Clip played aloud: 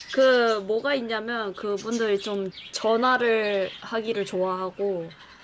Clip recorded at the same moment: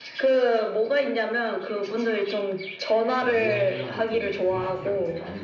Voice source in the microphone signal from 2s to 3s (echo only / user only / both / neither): echo only